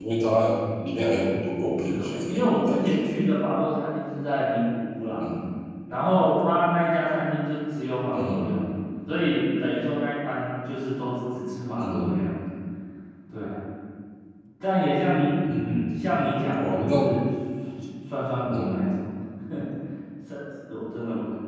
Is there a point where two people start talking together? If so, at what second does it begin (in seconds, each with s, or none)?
1.8 s